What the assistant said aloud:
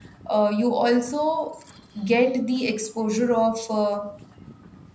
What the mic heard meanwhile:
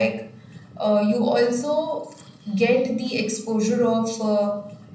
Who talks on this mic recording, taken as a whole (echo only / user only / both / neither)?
echo only